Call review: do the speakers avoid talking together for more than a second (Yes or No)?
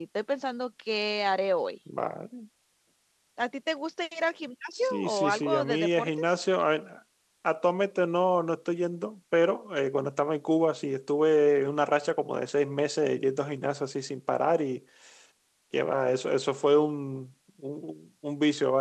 No